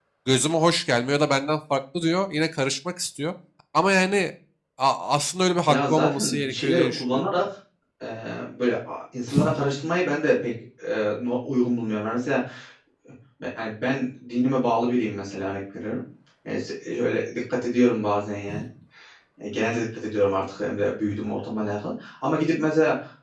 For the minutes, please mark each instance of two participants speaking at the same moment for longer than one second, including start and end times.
5.7-7.3

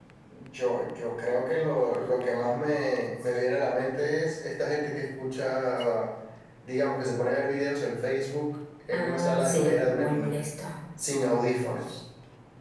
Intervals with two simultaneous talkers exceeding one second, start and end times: 8.9-10.3

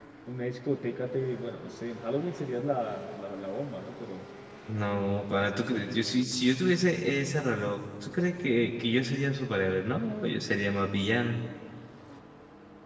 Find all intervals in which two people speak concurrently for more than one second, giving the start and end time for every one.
none

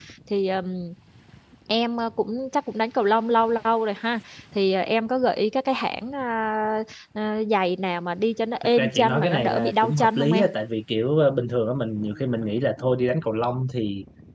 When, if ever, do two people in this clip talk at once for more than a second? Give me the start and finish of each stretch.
8.6-10.4

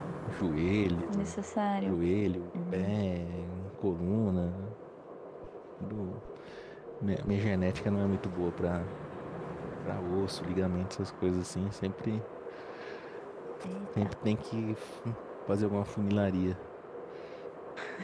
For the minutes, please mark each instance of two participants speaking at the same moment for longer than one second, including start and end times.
none

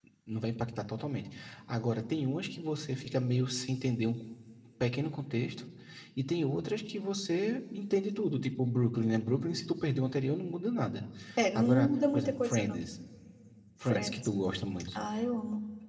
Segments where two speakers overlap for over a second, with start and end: 11.6-12.8

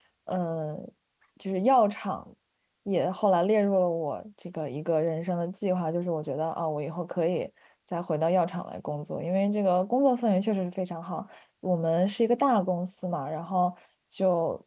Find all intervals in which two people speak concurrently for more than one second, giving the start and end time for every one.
none

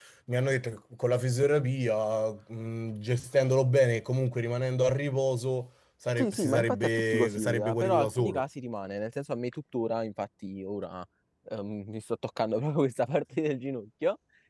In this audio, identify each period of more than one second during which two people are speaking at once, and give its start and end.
6.2-8.4

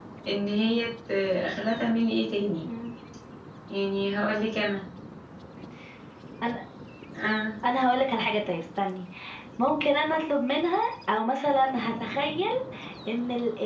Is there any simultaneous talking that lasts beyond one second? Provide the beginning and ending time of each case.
none

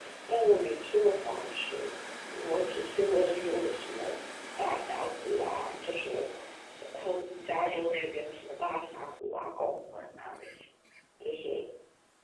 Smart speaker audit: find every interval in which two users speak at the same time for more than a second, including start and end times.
none

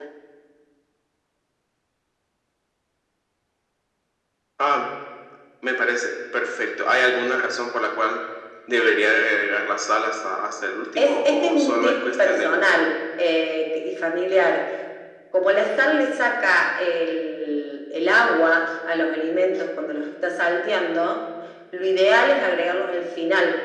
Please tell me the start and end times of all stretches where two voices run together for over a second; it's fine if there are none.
11.0-13.0

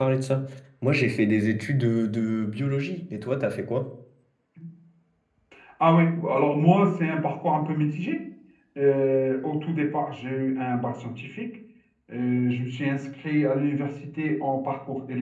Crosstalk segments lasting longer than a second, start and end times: none

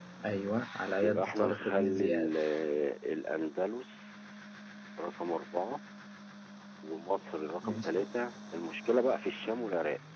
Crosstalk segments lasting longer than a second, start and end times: 1.0-2.3

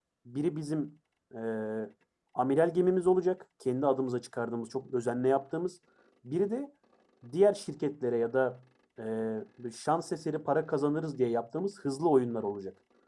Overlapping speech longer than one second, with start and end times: none

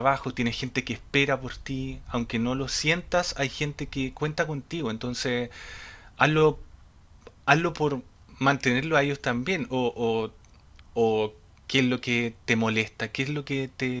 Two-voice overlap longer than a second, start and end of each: none

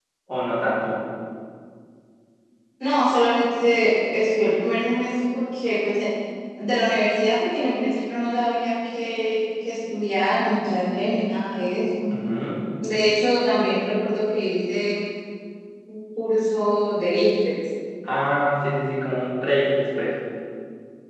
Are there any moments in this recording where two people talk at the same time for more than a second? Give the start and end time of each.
none

